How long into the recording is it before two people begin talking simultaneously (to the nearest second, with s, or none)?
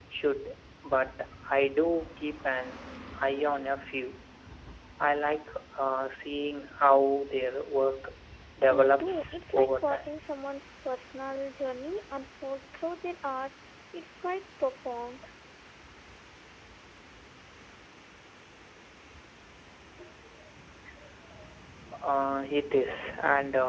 9 s